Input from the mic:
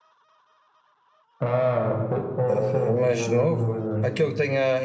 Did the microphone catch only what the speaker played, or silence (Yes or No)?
No